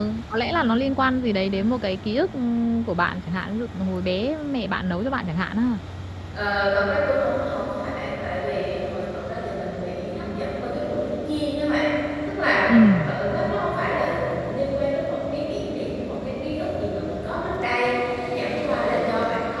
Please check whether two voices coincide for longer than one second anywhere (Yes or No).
No